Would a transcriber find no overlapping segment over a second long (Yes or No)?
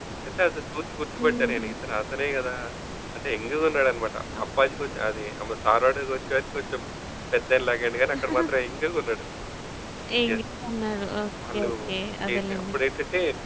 Yes